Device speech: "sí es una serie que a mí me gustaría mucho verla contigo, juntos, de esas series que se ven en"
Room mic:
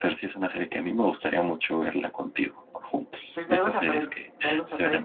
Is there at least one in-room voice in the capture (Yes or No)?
Yes